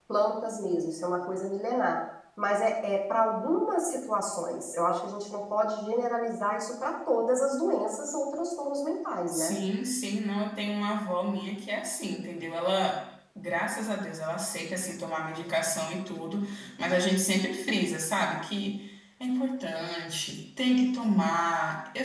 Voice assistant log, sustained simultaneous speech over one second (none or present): none